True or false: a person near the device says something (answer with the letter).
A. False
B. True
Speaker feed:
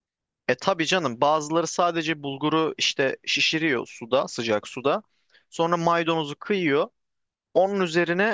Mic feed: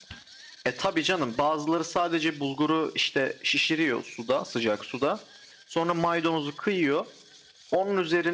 A